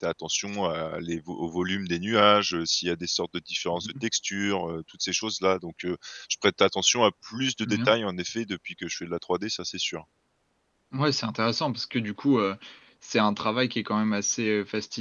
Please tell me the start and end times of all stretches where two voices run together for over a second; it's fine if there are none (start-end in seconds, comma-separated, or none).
none